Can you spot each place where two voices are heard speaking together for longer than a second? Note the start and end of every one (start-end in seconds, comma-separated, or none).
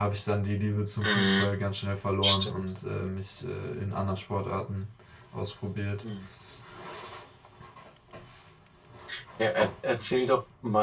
none